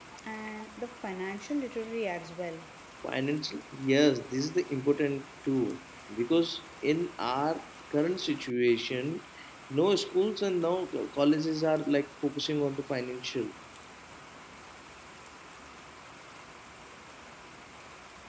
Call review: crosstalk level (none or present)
none